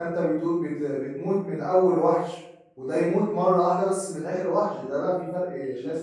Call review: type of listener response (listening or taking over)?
taking over